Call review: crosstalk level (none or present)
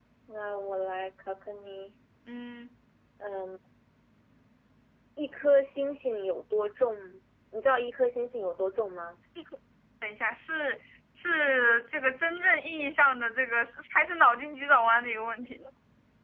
none